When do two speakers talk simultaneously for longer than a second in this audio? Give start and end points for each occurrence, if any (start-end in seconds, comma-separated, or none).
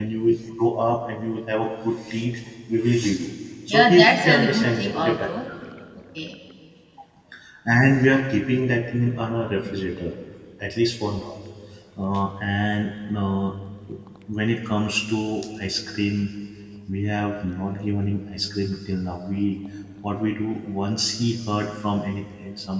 3.7-5.3